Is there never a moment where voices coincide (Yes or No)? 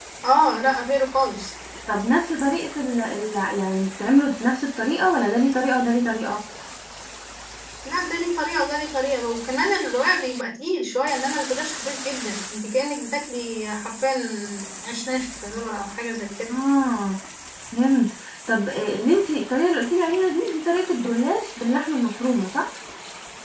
Yes